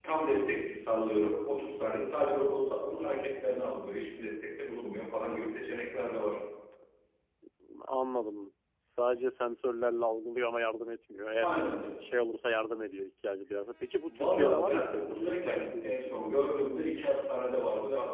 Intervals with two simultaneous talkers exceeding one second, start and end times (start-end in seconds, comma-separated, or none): 14.1-16.2